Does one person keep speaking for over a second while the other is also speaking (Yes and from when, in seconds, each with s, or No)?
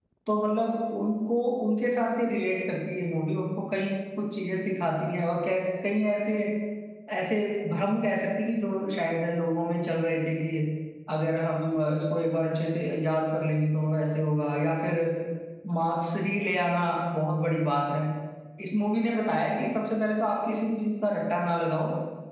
No